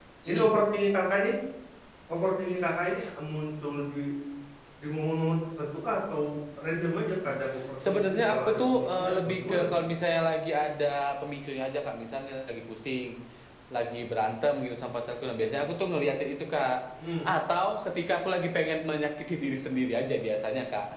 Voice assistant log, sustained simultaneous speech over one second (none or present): present